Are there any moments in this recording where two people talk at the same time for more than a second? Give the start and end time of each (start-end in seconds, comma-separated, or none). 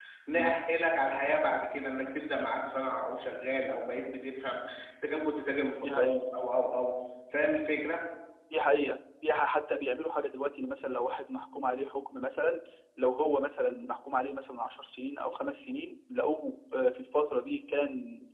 none